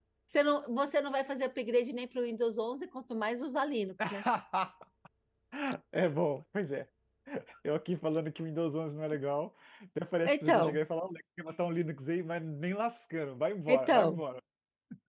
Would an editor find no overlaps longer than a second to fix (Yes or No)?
Yes